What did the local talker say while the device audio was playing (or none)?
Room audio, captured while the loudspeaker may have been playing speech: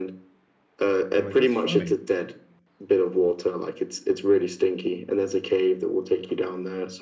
I'm like, that's funny.